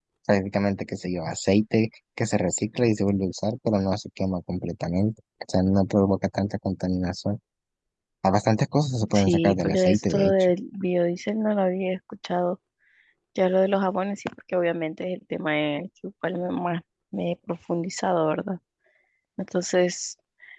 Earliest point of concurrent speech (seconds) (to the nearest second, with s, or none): 9 s